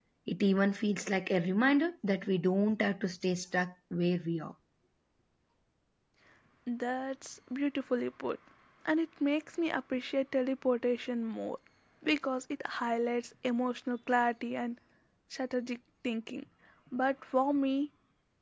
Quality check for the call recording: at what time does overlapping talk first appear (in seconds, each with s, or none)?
none